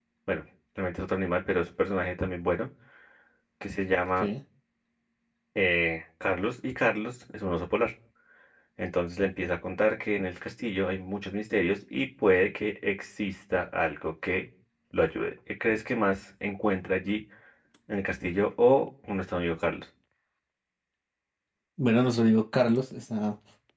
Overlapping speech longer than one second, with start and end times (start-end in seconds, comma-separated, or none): none